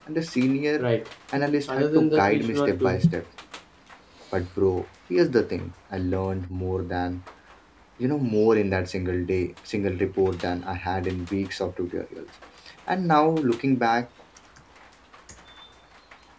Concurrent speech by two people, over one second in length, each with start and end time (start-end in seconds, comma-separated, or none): 1.7-3.0